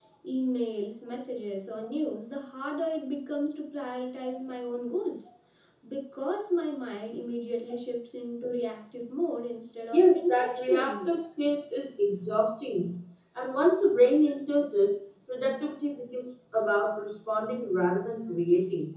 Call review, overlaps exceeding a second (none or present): present